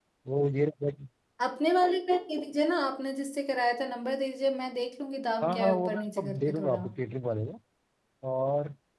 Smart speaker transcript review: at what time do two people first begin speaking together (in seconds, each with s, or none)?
5.4 s